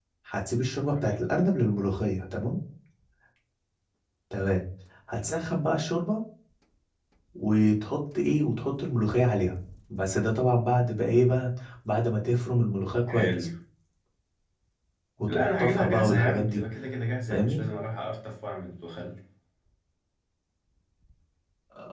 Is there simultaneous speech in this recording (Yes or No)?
Yes